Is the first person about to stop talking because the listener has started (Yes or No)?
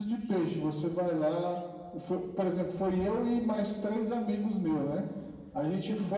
No